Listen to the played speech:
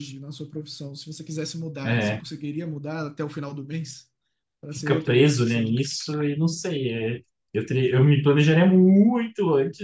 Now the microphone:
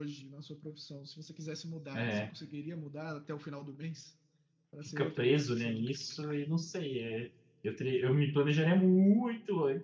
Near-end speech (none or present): none